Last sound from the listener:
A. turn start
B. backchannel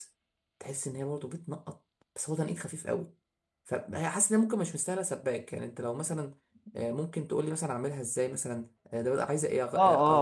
A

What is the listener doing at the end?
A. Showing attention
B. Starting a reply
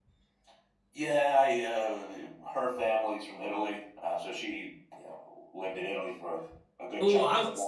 B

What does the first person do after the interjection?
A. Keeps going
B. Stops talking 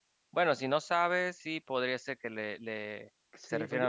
B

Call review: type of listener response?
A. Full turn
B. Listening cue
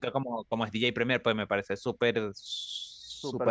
A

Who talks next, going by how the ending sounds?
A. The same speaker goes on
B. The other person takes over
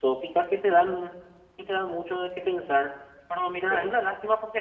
A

